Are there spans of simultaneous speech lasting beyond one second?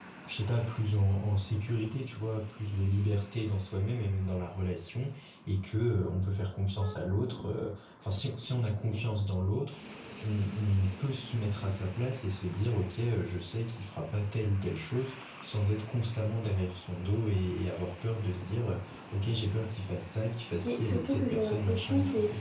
Yes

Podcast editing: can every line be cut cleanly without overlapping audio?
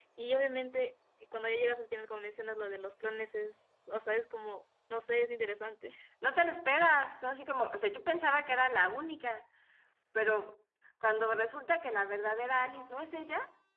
Yes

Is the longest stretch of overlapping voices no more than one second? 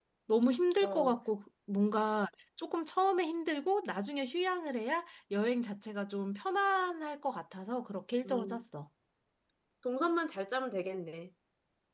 Yes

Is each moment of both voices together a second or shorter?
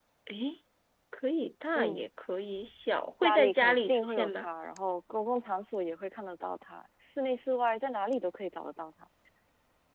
No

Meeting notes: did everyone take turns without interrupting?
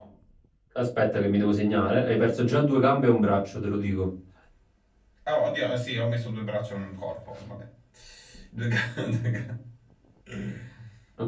Yes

